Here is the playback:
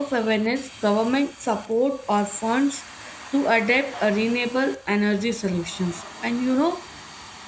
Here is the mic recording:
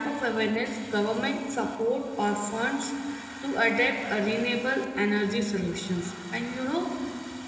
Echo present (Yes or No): Yes